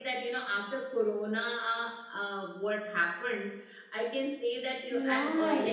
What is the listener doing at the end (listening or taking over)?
listening